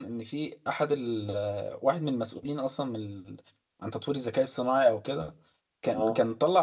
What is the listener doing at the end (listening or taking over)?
listening